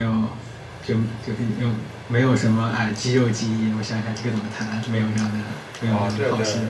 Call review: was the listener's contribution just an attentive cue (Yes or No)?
No